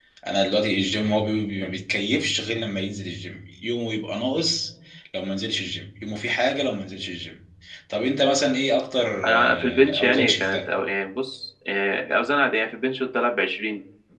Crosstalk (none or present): present